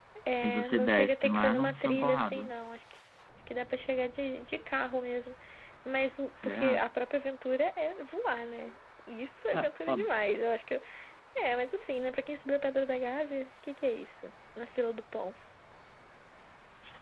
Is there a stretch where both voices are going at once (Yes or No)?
Yes